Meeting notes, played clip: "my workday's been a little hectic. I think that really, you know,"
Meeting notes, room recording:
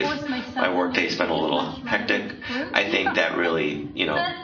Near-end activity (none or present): present